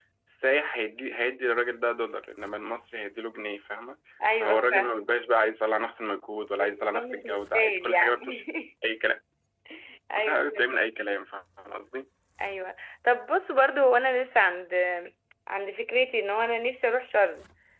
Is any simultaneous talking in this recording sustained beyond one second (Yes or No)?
Yes